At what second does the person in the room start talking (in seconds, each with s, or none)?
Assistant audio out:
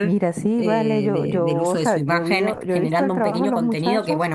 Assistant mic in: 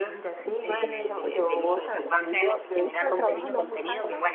none